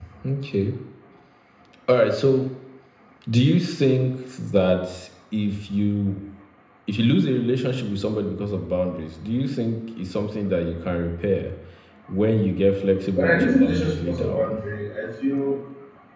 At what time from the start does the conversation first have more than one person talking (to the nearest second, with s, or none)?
13 s